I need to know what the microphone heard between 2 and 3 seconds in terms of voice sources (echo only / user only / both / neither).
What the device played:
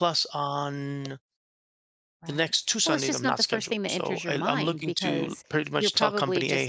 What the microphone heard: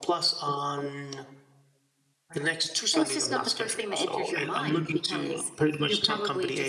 echo only